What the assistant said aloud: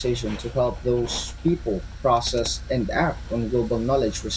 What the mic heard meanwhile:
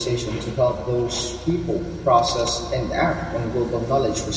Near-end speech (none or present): none